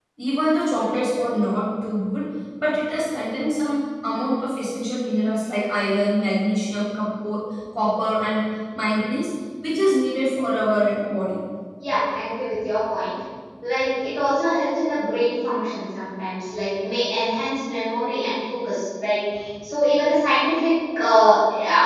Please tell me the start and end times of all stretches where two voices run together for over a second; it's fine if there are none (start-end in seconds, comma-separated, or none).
none